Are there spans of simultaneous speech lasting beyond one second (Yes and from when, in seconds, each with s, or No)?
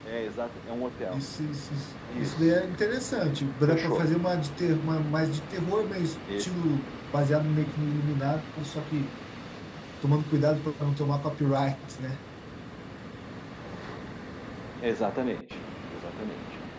No